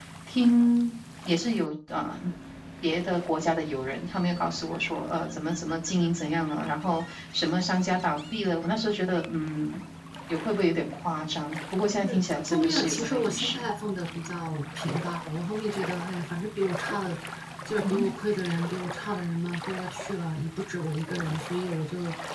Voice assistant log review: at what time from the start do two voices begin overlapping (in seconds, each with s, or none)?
12.0 s